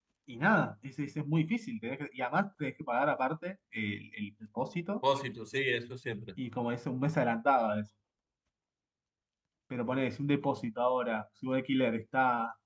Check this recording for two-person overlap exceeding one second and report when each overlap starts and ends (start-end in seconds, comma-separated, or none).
none